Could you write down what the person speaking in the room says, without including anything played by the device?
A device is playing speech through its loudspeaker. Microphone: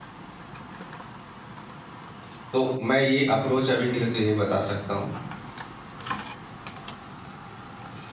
तो मैं ये अप्रोच अभी के लिए तो यही बता सकता हूँ

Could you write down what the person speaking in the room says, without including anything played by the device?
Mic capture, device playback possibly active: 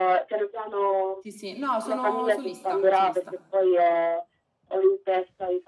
sì, sì, no, sono solista, solista.

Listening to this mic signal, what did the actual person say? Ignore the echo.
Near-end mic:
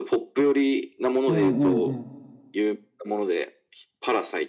うんうんうん。

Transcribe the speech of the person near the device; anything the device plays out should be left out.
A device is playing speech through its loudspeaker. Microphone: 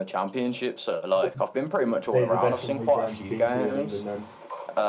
What what would you say is the best away ground you've been to in England? Then

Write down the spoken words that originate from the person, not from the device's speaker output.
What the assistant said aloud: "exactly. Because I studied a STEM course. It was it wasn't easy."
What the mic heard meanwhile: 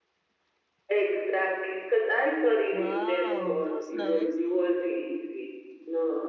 wow, that's nice.

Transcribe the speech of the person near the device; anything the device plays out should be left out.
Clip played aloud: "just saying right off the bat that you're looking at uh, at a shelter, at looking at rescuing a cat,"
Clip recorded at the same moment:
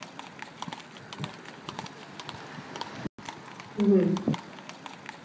Mhm.

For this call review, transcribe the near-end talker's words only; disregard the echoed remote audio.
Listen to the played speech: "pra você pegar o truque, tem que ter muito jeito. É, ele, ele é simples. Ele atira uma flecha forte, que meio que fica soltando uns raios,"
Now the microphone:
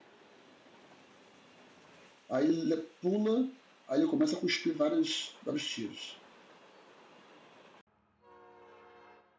Aí ele pula, aí ele começa a cuspir vários, vários tiros.

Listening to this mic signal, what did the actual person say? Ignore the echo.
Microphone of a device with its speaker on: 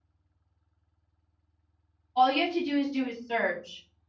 all you have to do is do is search.

